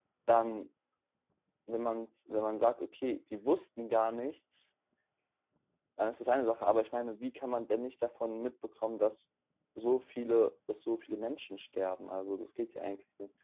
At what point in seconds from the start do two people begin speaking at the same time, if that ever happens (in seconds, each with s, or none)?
none